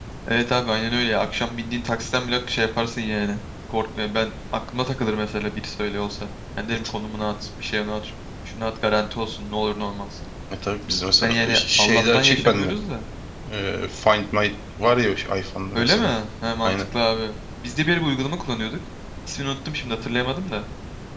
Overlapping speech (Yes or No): Yes